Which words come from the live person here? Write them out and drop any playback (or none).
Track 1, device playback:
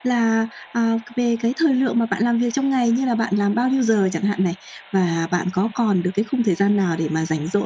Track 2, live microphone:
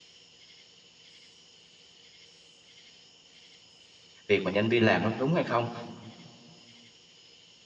việc mà nhân viên làm nó đúng hay không.